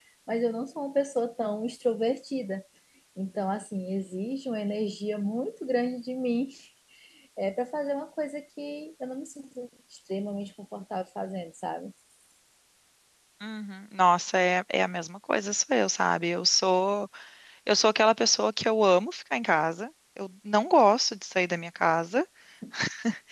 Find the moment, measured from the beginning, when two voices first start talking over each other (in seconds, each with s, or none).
none